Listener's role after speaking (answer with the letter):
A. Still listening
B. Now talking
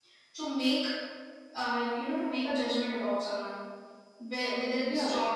A